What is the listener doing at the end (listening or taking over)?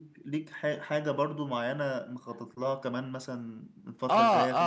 taking over